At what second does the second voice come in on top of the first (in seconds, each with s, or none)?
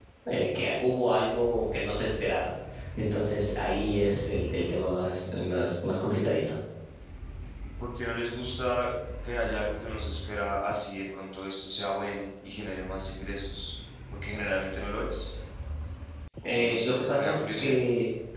16.5 s